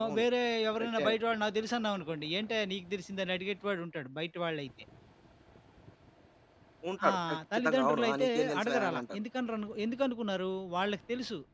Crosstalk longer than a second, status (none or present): present